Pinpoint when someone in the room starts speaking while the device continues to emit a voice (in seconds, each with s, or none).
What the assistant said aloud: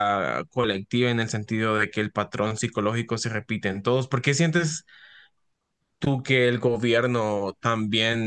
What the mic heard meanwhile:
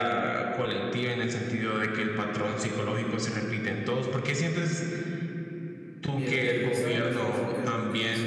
6.1 s